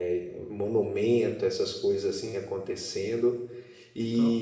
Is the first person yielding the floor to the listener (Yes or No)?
No